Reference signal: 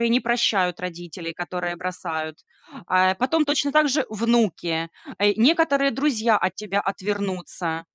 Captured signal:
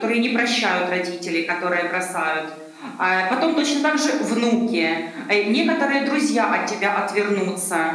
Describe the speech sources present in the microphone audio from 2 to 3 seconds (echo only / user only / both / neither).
echo only